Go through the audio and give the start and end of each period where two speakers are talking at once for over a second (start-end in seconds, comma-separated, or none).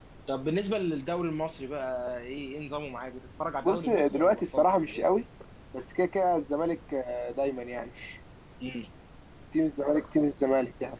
3.6-5.0